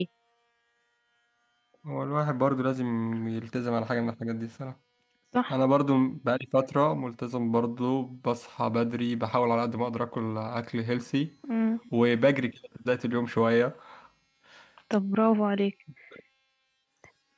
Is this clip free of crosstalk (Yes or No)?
Yes